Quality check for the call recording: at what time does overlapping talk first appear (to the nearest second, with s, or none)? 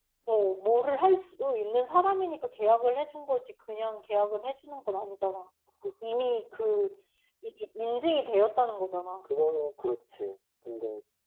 none